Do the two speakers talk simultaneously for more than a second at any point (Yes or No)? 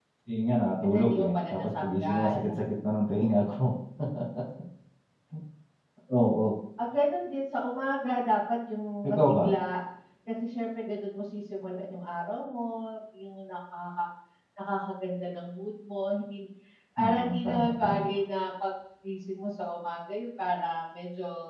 Yes